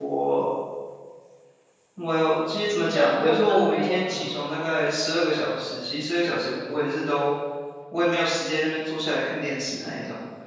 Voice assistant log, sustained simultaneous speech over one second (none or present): present